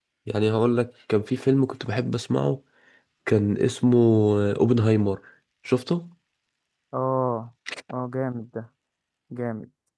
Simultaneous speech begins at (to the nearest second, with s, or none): none